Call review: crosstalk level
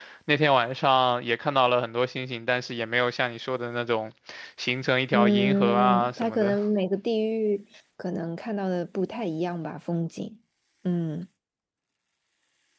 present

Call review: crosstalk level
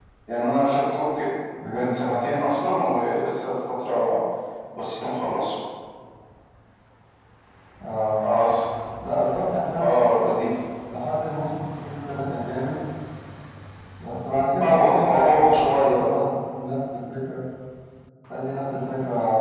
present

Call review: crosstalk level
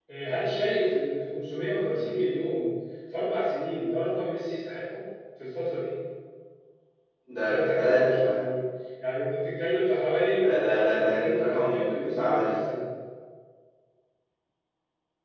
present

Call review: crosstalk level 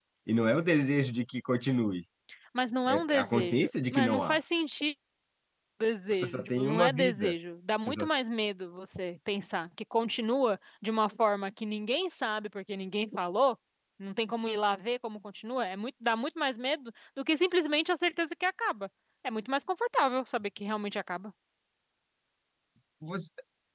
present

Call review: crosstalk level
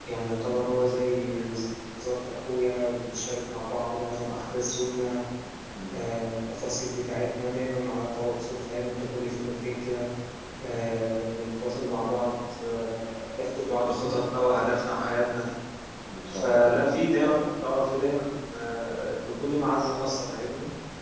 present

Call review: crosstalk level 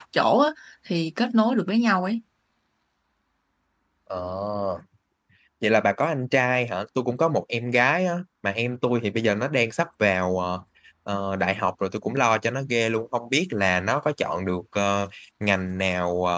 none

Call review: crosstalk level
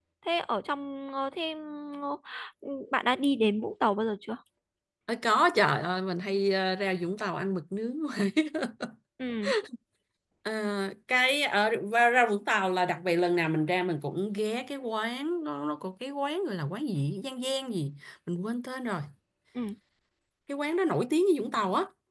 none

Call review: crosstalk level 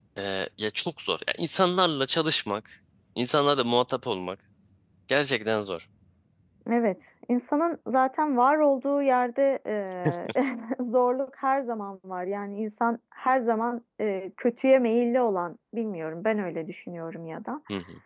none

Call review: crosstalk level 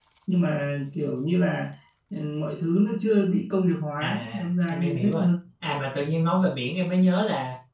present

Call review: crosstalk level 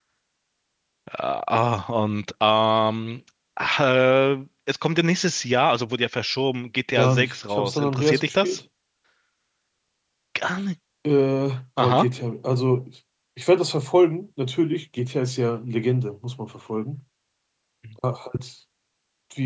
present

